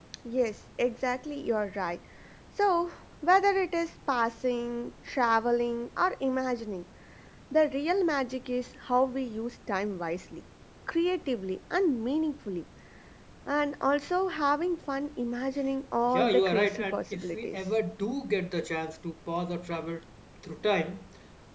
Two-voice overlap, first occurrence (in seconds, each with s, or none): 16.1 s